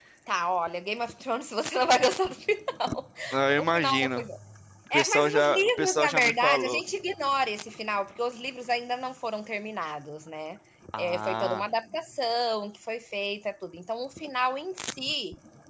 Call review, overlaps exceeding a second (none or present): present